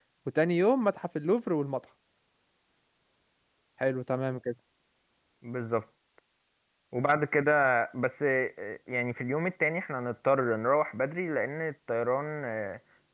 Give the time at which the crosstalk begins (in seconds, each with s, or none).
none